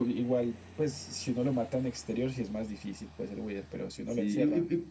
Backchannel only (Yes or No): No